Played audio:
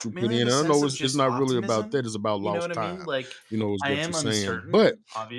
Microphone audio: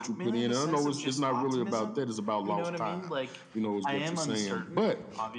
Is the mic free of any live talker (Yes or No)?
Yes